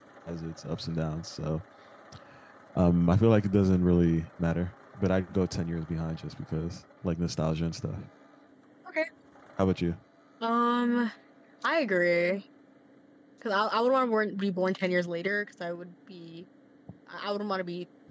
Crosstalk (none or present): none